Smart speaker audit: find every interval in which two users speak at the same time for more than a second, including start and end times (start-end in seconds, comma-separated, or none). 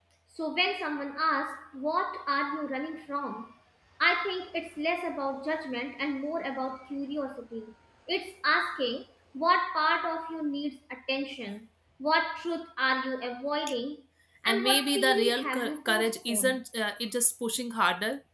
14.4-16.6